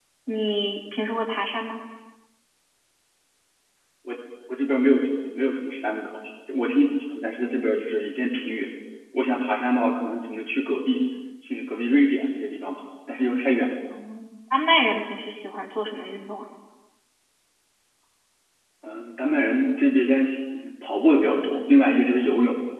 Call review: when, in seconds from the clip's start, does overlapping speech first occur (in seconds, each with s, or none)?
none